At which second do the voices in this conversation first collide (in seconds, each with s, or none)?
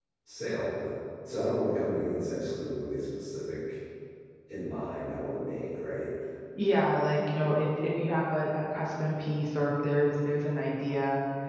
none